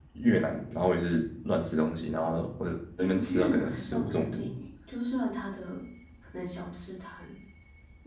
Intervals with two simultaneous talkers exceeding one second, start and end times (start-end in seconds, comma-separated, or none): 3.0-4.5